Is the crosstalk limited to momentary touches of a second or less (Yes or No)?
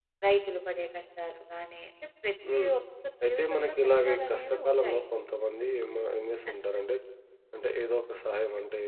No